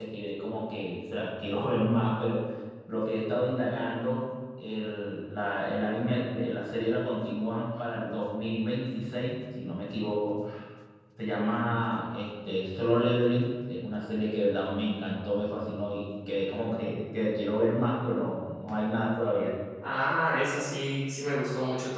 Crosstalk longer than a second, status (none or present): none